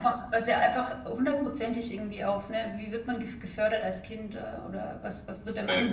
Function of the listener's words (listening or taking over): taking over